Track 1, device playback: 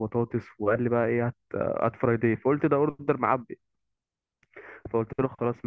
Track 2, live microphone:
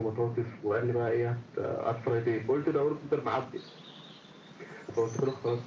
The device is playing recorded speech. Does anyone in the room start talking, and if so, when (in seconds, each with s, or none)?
none